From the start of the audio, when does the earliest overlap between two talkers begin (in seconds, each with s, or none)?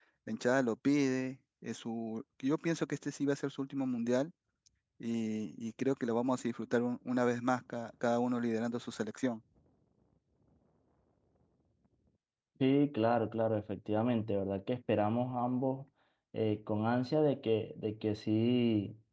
none